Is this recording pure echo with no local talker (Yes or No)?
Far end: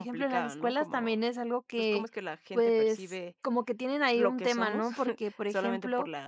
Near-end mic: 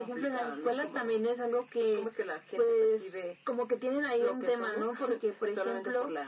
Yes